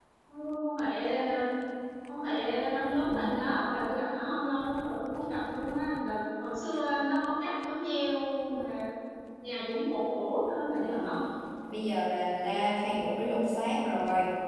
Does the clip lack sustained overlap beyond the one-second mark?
Yes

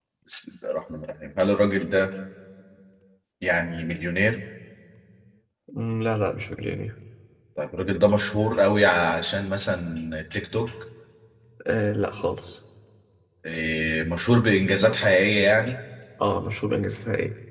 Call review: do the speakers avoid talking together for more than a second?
Yes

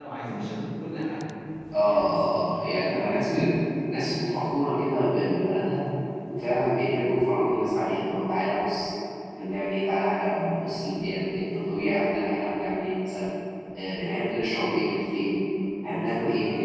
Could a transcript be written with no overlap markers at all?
No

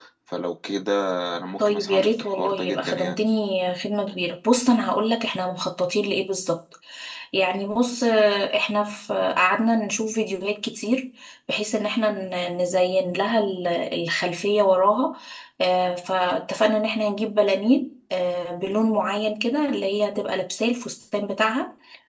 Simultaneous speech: Yes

